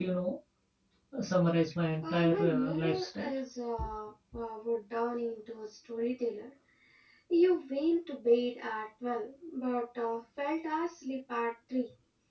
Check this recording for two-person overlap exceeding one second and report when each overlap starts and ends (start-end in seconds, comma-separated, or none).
2.0-3.3